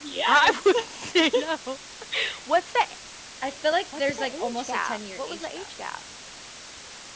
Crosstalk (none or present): present